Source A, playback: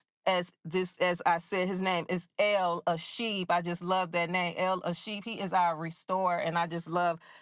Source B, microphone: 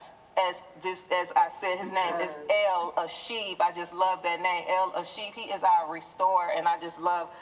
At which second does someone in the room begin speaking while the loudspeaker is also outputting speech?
2 s

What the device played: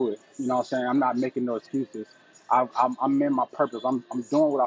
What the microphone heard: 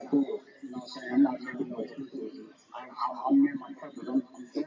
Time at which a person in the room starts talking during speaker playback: none

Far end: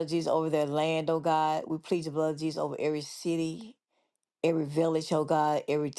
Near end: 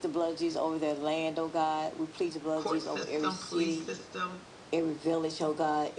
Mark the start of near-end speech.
3 s

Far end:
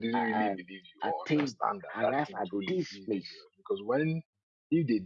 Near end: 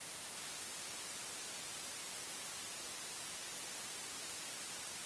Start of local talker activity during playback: none

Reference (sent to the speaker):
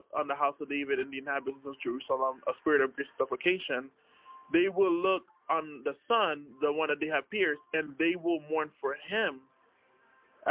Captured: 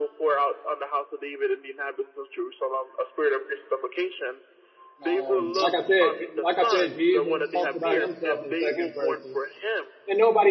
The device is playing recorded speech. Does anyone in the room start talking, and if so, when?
5 s

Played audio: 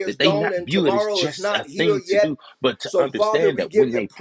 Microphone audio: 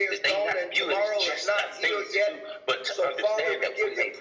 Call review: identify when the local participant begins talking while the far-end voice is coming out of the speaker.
none

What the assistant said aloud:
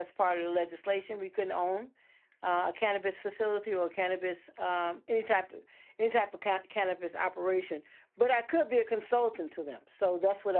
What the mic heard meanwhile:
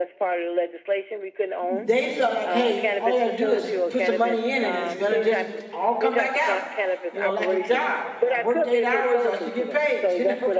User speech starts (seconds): 2 s

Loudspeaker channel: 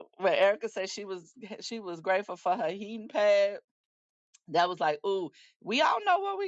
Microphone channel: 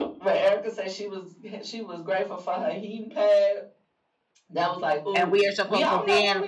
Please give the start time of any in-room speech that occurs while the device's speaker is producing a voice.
5 s

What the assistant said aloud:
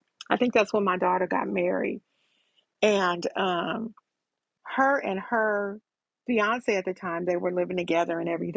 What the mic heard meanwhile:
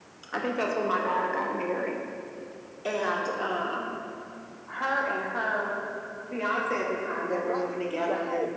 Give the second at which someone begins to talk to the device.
7 s

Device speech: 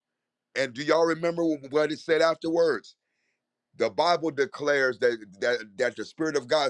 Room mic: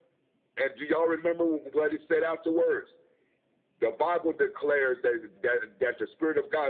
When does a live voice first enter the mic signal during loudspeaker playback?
none

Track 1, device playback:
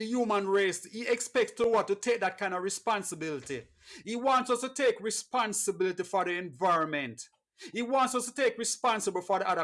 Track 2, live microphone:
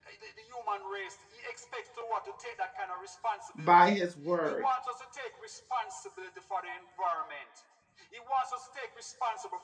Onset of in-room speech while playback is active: 4 s

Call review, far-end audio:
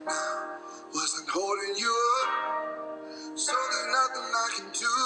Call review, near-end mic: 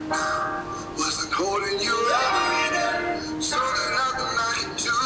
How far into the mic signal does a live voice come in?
2 s

